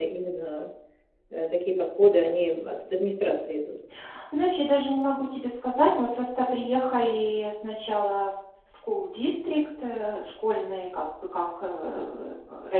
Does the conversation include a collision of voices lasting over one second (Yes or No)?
No